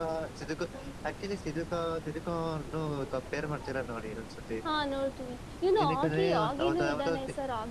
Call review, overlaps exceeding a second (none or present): present